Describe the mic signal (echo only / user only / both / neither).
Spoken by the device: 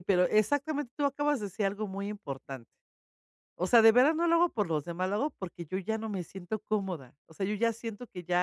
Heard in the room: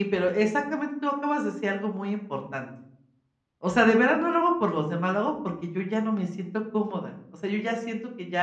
echo only